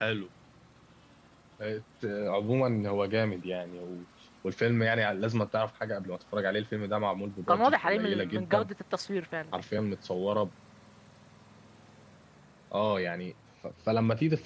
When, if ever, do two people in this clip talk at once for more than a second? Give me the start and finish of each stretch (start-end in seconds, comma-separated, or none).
7.5-8.7